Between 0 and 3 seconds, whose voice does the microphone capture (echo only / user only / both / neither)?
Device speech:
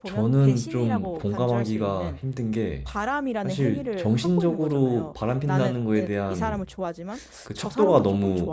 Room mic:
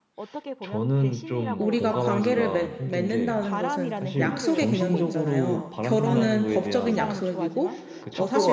both